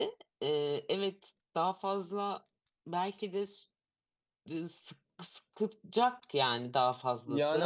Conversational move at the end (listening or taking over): taking over